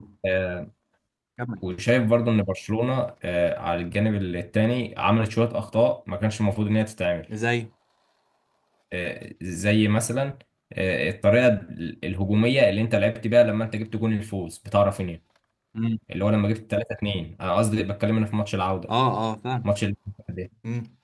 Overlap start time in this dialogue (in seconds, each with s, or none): none